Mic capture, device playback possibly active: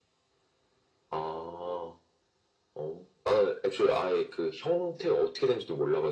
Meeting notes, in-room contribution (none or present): none